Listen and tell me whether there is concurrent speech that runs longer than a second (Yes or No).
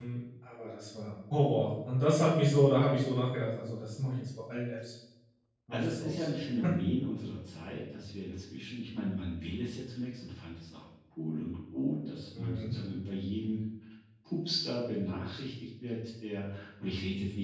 No